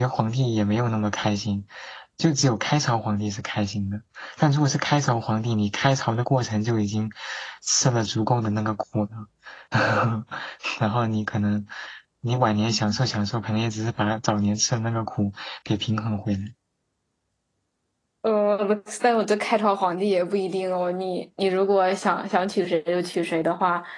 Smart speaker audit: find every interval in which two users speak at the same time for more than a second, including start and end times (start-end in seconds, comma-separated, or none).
none